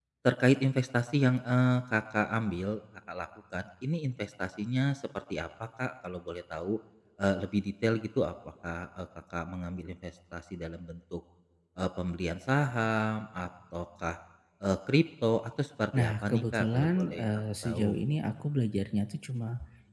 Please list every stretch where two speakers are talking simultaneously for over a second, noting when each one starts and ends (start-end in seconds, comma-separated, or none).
15.9-17.9